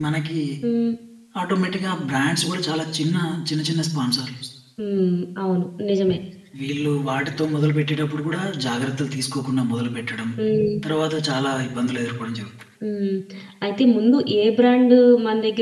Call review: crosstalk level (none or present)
none